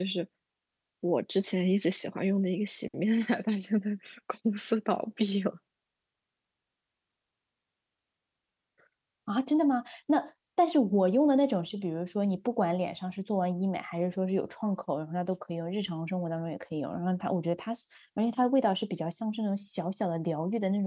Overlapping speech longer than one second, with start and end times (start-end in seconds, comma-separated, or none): none